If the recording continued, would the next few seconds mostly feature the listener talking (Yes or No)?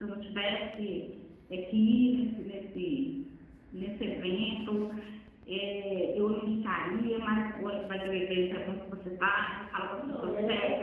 No